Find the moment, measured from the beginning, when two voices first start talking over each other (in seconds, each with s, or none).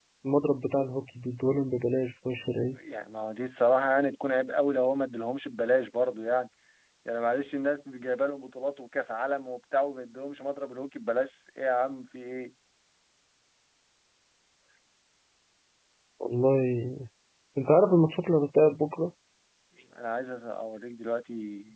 none